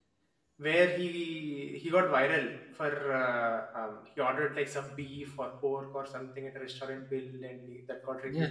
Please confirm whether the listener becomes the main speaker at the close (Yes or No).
Yes